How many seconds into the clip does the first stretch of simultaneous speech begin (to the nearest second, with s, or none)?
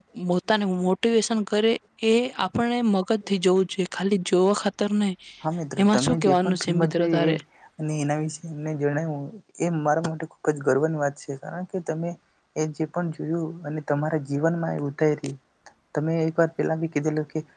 6 s